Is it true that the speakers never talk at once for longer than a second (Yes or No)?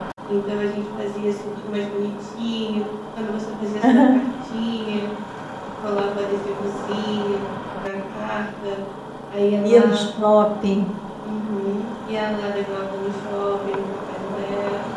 Yes